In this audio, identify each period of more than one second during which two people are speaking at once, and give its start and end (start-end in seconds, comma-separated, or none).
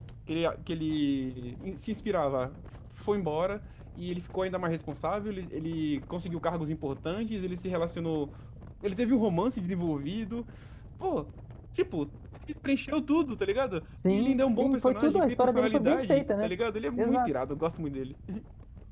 14.1-16.5